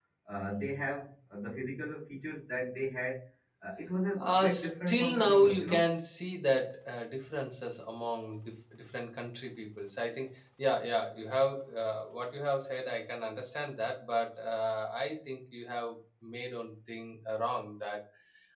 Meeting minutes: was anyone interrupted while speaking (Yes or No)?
Yes